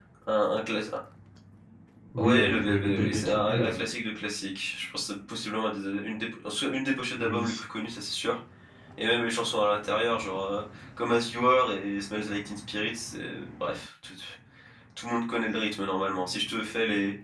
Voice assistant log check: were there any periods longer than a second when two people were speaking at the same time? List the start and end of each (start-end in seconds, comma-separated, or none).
2.2-3.8